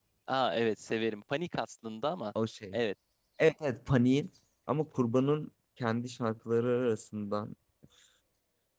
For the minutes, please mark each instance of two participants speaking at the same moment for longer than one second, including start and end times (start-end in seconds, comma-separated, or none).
none